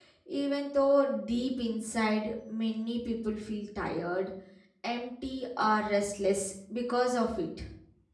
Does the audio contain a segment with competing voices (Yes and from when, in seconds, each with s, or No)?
No